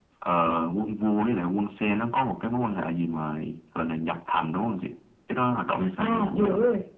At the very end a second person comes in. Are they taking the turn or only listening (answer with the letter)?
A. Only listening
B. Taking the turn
B